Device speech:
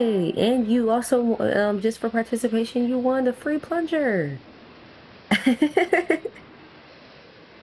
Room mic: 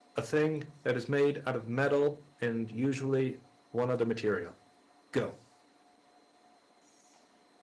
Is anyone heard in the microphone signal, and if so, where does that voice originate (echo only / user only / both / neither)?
user only